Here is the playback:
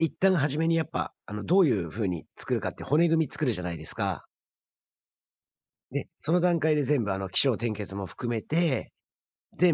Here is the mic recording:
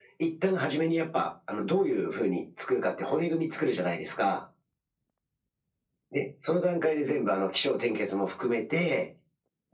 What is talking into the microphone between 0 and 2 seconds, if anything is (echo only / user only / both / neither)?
echo only